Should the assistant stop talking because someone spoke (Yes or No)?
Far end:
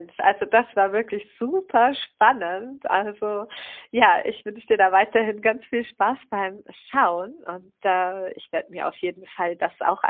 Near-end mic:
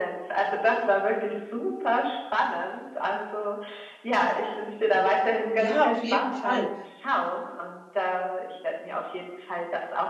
Yes